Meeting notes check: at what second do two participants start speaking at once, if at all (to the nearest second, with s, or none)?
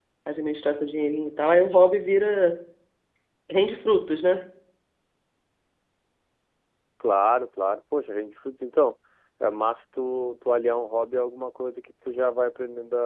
none